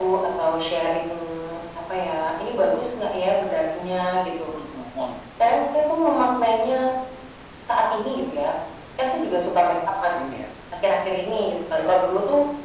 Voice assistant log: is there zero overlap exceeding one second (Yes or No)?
Yes